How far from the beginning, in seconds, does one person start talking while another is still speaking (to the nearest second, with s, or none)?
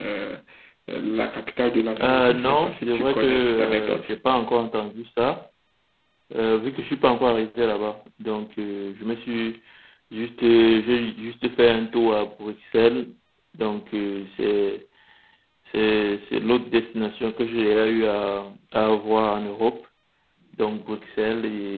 2 s